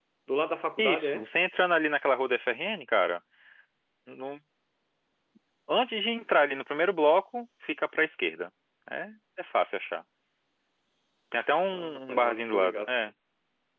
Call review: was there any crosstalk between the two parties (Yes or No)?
Yes